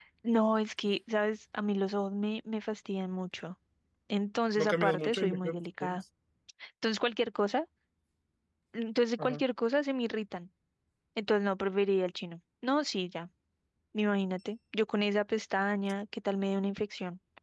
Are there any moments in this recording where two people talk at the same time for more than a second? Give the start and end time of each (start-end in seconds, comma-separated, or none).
4.6-6.0